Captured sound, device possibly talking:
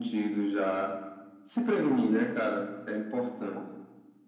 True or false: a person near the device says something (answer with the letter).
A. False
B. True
A